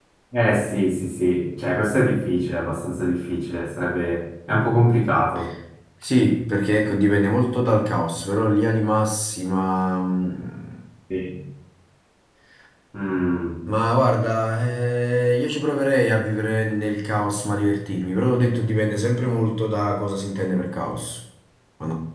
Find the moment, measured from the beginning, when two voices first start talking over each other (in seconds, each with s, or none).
none